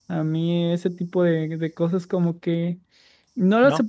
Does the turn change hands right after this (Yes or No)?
No